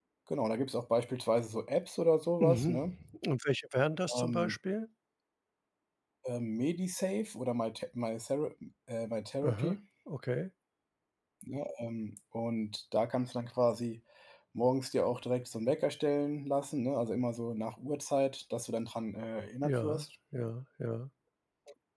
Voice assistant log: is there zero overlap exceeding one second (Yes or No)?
Yes